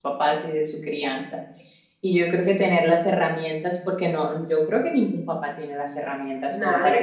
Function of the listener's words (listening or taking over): listening